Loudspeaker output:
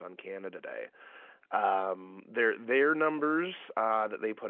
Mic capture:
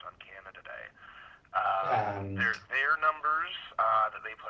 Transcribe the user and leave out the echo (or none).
um,